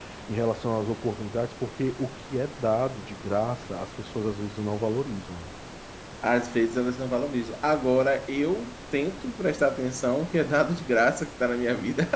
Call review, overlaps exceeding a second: none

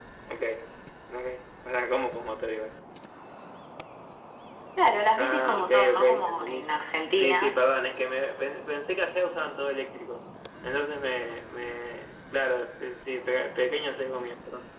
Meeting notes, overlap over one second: present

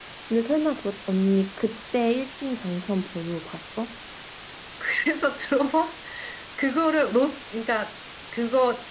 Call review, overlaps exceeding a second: none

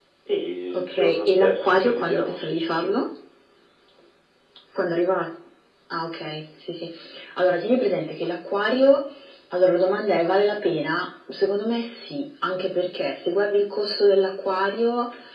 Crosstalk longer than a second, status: present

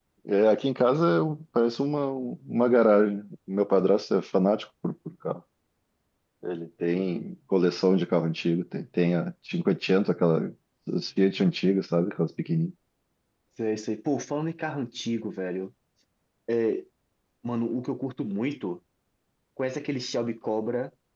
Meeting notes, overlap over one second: none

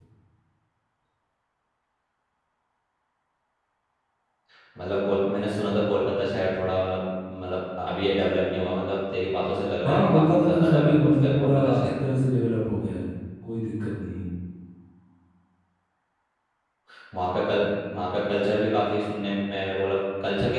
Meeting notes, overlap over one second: present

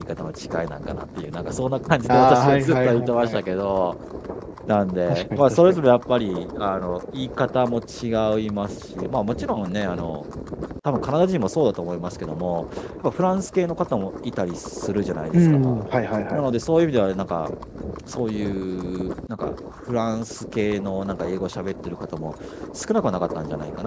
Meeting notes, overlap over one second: present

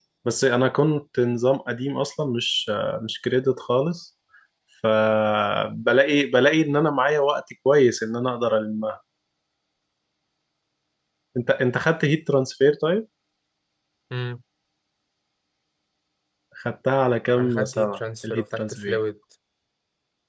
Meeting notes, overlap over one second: present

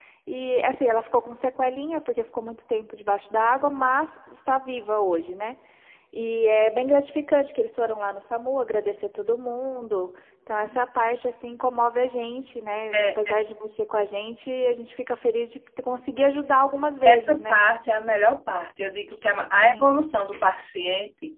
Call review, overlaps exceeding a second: none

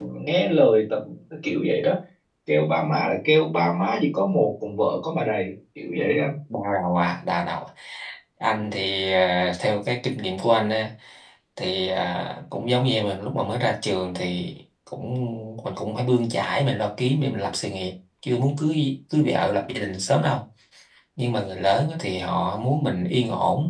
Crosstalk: none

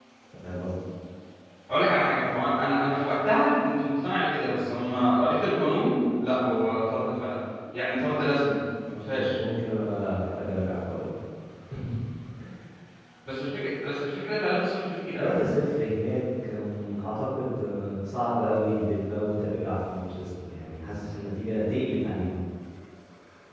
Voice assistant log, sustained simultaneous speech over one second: none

